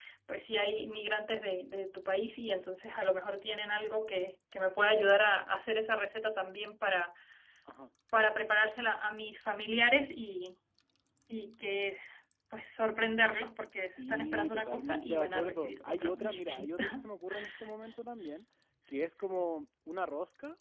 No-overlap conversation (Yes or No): No